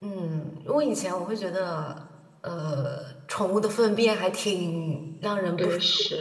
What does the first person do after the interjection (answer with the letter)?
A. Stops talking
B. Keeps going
B